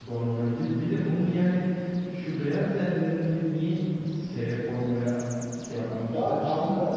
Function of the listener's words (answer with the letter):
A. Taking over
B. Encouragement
A